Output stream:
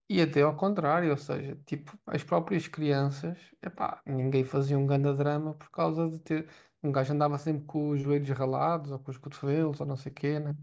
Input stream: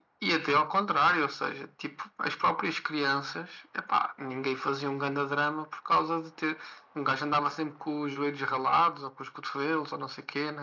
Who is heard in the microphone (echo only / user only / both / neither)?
echo only